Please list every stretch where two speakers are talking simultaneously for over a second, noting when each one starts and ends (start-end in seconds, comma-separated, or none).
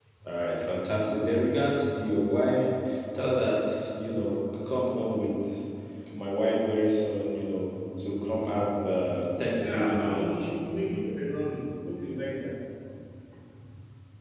9.6-10.9